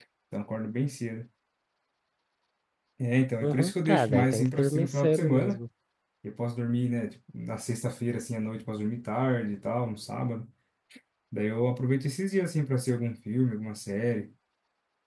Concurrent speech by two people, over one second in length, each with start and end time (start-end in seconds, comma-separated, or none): 3.4-5.6